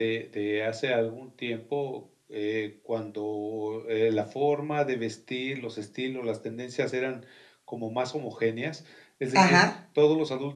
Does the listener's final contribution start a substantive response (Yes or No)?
No